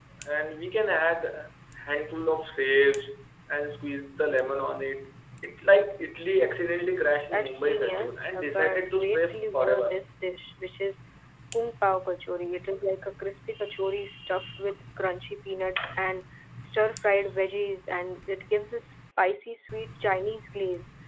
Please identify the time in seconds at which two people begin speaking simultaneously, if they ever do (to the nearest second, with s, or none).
7 s